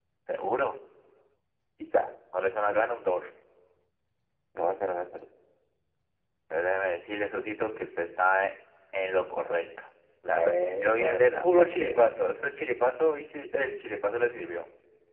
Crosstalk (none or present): present